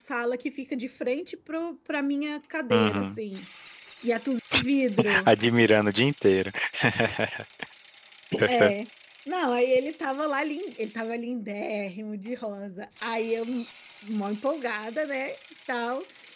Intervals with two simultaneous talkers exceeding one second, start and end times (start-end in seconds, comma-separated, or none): none